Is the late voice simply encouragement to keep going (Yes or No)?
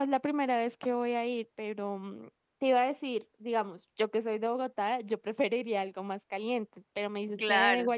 Yes